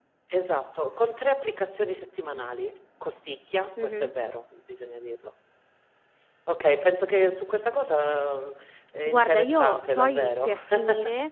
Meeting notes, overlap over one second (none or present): present